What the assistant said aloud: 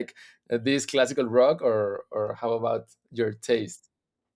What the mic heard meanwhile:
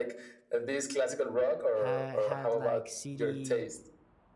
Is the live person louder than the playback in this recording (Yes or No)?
No